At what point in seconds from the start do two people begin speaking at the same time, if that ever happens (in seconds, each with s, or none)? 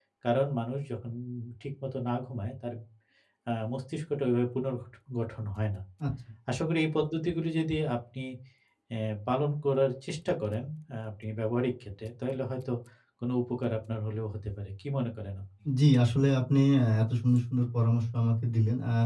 none